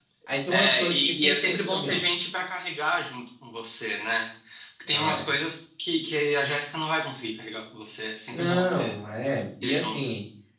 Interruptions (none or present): present